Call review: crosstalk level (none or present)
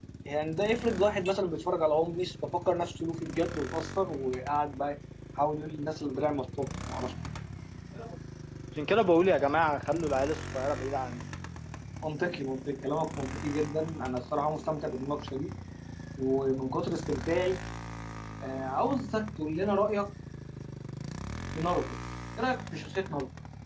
none